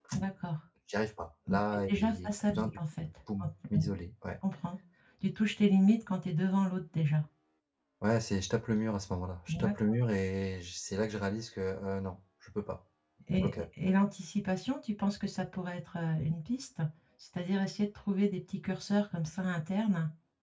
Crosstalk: present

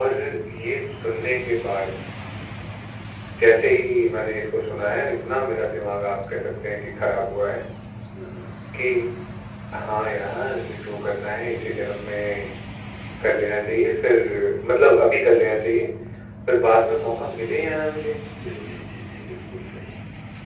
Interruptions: none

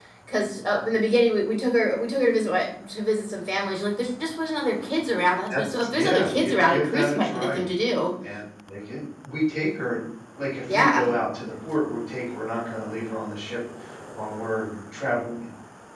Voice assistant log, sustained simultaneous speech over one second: present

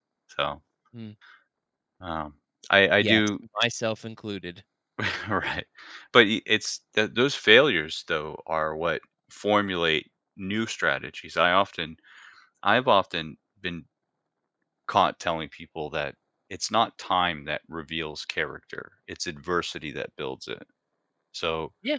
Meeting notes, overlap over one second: none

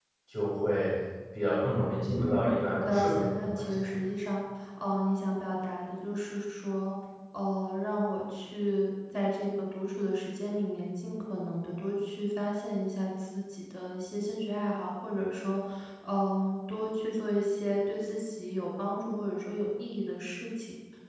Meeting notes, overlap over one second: present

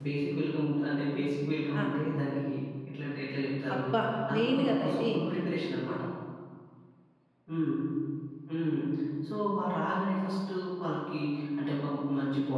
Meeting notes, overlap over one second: present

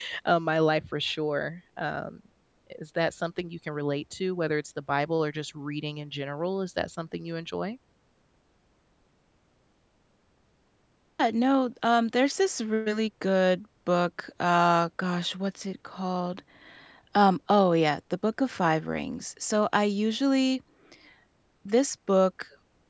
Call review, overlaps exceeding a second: none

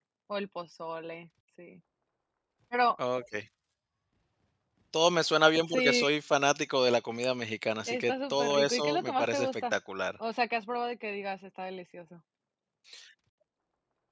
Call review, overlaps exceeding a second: present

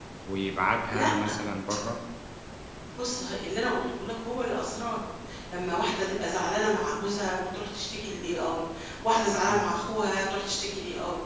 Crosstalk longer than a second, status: none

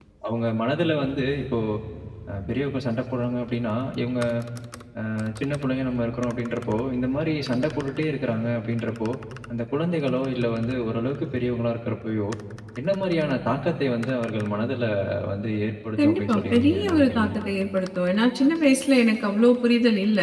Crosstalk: present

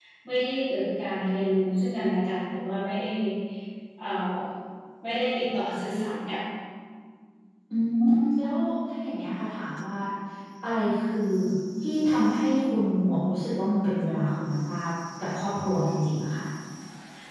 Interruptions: none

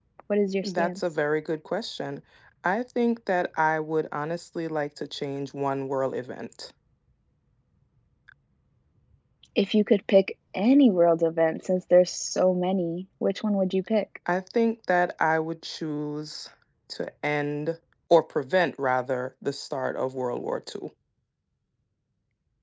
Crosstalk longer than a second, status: none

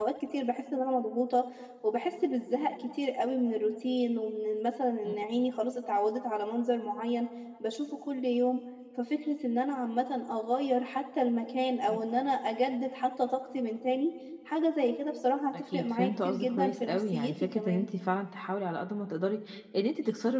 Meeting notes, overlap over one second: present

